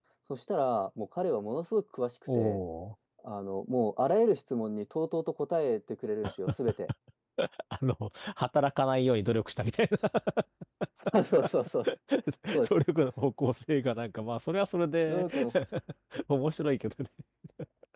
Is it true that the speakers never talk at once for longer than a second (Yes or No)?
Yes